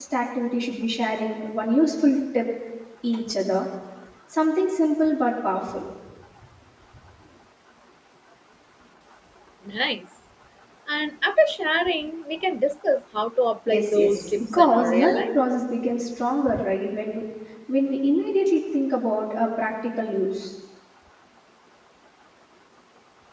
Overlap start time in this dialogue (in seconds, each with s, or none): 13.7 s